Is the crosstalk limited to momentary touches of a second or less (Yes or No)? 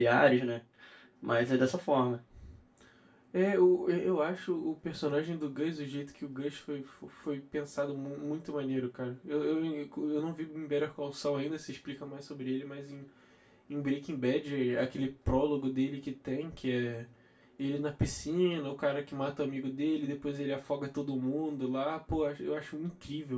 Yes